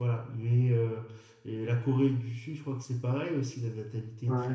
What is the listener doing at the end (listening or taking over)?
listening